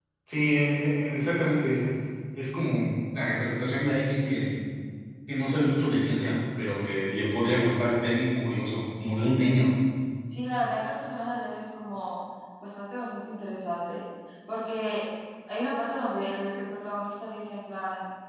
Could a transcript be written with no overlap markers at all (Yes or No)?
Yes